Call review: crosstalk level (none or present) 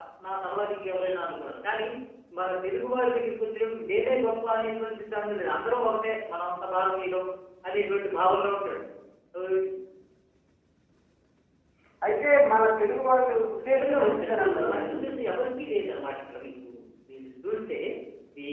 present